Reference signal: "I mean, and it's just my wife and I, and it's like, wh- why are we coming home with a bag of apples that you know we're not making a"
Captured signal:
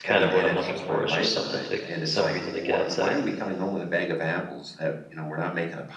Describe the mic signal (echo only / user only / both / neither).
both